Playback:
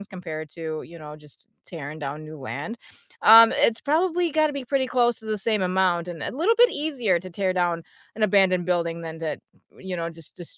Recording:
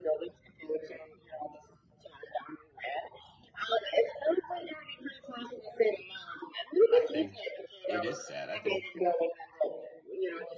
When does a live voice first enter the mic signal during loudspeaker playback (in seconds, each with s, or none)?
6.9 s